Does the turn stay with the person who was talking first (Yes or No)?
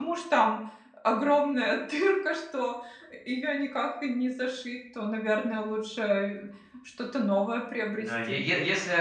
No